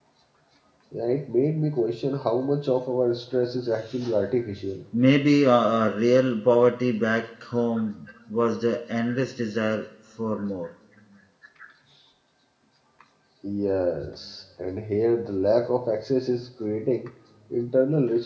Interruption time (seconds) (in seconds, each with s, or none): none